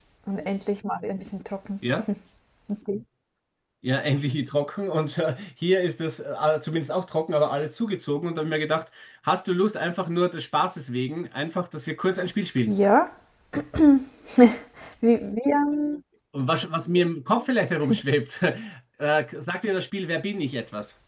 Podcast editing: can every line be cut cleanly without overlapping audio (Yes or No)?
Yes